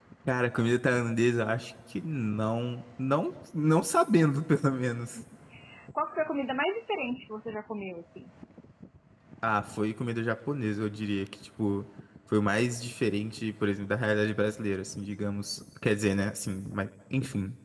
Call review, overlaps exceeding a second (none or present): none